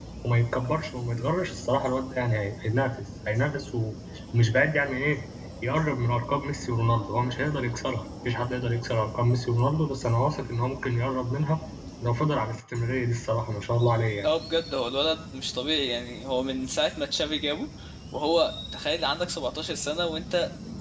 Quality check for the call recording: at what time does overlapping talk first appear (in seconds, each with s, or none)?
none